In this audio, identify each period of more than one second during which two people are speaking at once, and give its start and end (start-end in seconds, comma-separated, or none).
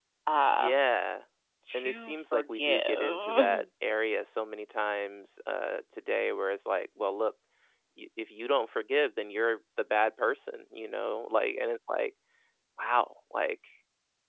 1.7-3.6